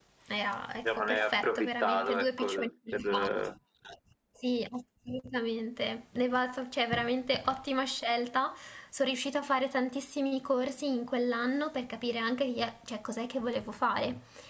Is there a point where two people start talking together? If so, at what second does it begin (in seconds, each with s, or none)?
0.8 s